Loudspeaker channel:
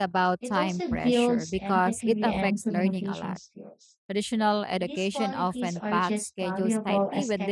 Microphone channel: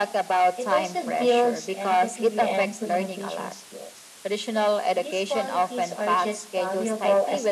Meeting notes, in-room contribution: none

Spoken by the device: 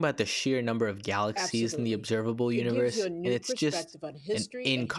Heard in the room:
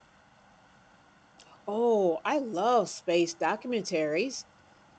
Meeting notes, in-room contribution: present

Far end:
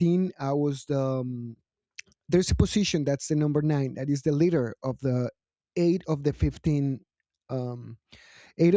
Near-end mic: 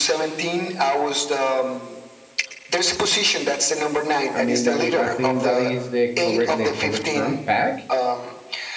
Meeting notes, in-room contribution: present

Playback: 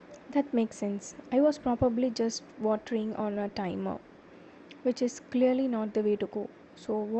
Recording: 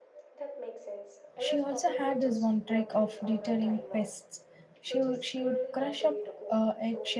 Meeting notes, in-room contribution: present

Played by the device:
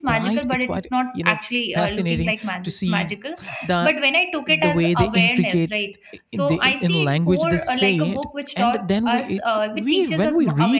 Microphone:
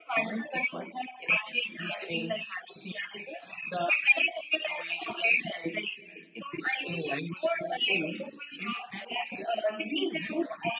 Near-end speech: none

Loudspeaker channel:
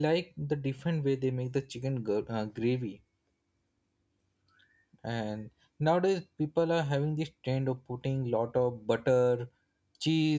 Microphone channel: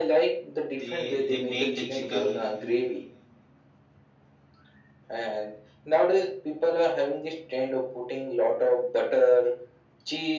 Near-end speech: present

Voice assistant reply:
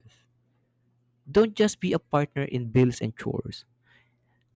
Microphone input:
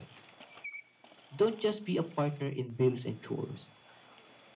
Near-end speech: none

